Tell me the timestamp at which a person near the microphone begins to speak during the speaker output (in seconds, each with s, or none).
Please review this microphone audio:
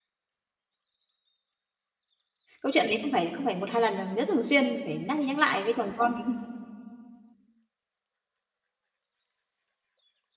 2.6 s